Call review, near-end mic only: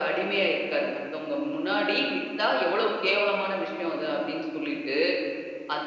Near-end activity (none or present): none